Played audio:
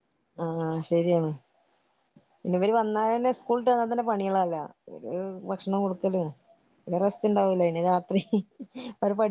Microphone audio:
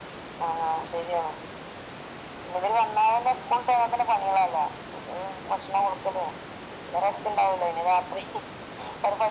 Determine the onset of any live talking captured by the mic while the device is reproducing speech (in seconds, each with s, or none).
none